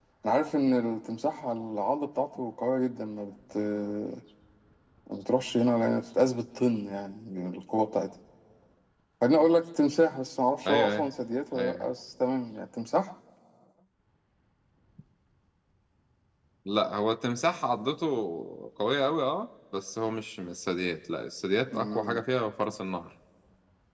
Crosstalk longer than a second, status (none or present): none